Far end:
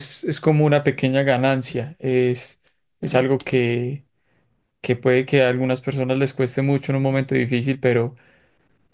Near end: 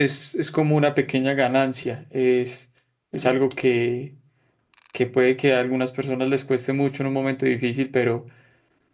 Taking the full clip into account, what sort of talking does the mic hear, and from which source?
echo only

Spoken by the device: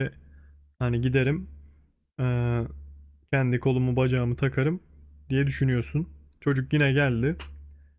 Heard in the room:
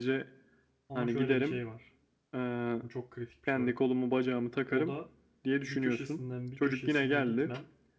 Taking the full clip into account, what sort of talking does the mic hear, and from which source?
both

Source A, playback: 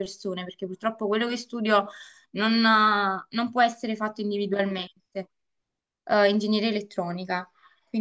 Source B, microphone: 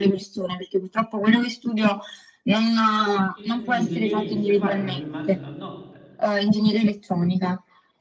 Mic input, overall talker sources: both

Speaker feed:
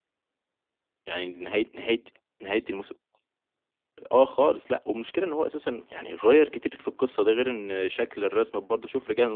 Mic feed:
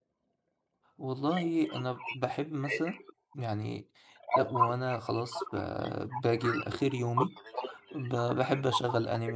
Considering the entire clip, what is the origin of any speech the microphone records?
both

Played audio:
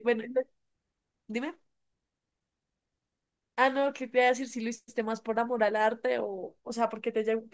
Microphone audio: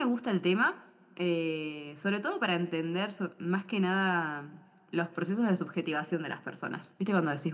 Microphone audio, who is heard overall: user only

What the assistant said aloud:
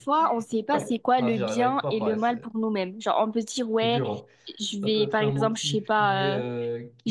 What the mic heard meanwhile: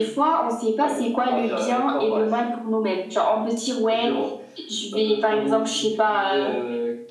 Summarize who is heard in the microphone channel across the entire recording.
echo only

